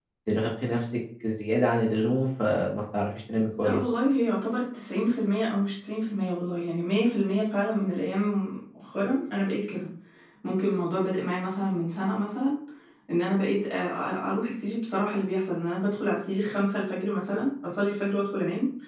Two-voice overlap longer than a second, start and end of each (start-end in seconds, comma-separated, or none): none